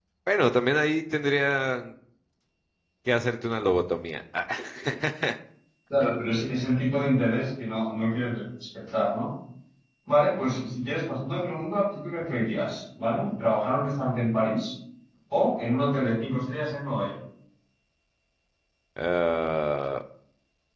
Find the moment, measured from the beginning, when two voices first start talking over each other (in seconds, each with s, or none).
none